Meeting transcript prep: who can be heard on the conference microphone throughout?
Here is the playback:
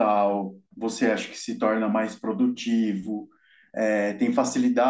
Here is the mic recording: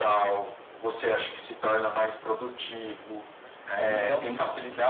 both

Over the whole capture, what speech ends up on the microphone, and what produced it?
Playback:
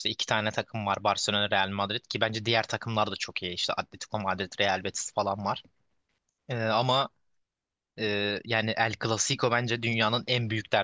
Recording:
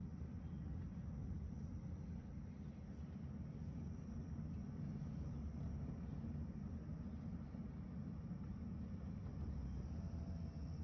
neither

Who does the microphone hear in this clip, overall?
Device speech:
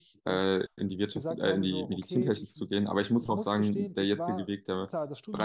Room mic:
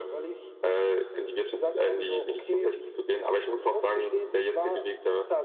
echo only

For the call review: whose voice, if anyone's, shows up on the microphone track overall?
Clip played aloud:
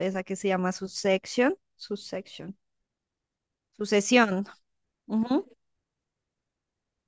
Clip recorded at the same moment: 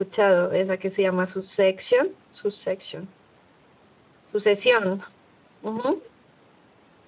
echo only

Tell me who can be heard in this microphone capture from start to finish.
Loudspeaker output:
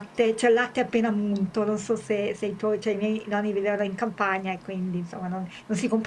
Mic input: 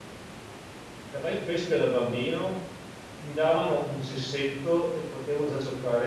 user only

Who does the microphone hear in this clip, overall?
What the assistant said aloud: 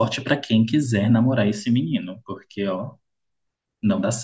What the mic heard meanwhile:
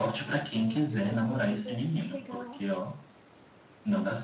both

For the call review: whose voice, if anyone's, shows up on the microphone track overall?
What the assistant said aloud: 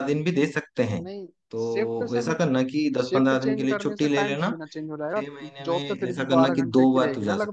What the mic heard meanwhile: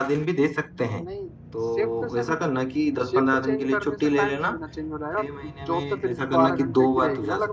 echo only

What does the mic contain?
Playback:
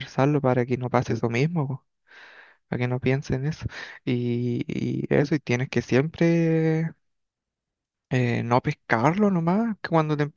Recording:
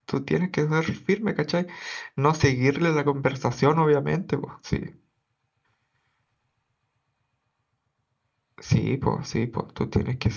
user only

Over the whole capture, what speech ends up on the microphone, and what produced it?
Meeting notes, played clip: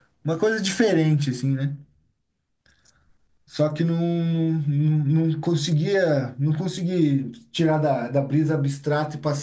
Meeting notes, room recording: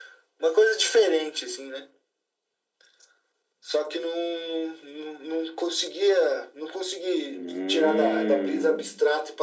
both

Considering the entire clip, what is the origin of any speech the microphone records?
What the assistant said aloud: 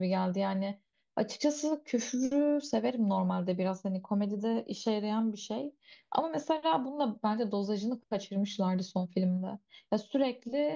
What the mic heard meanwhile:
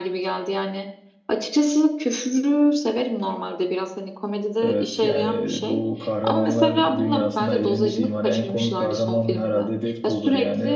both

